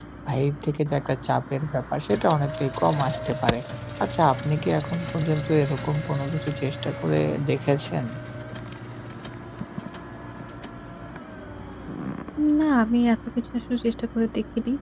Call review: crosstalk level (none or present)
none